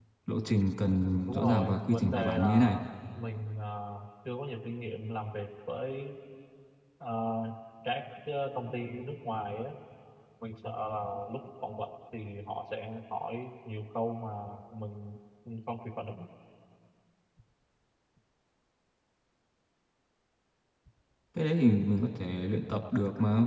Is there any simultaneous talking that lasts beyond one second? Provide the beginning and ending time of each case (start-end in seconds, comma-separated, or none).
1.3-2.7